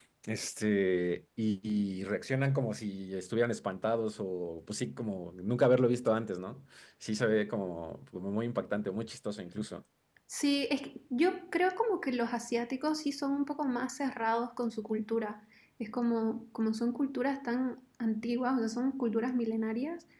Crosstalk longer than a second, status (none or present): none